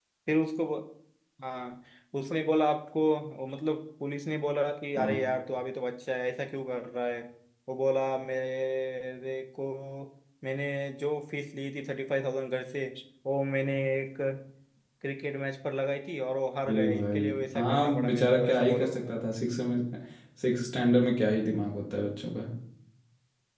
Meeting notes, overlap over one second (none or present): present